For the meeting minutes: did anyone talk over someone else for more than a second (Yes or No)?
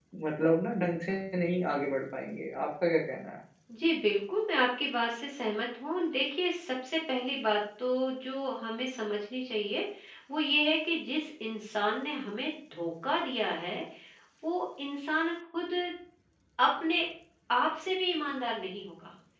No